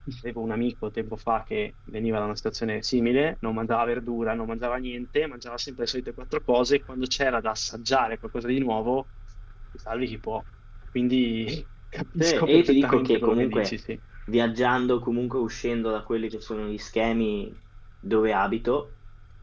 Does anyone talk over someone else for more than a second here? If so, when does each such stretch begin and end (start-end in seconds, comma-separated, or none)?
12.2-13.7